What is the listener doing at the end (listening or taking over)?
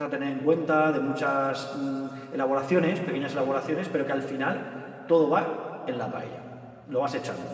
listening